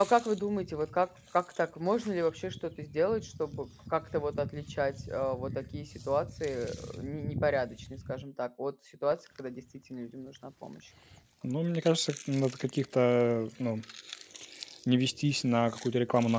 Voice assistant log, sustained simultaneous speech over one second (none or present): none